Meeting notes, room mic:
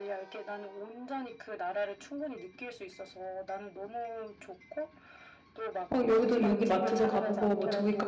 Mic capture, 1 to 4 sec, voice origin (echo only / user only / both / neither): echo only